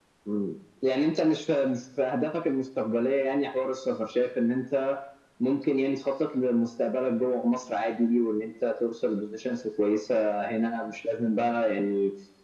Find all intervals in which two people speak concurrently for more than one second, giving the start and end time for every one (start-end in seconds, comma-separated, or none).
none